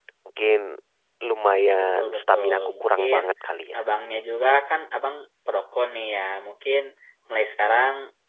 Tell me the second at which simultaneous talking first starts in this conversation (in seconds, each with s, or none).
1.8 s